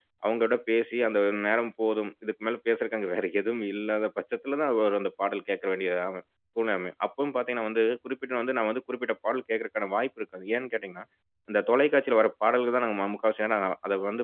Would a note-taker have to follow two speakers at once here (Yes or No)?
No